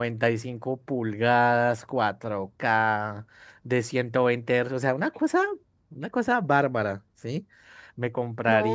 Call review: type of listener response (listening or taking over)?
taking over